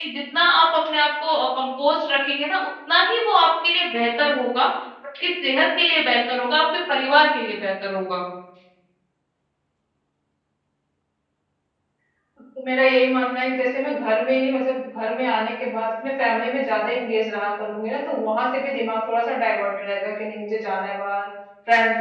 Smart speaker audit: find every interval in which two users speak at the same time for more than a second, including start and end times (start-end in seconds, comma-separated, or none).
none